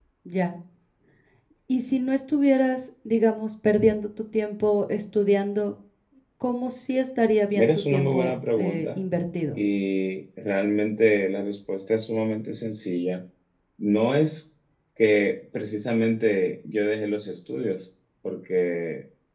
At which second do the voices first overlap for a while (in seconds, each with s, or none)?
7.5 s